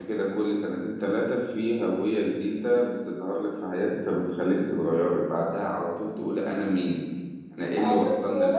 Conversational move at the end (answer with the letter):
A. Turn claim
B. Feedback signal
A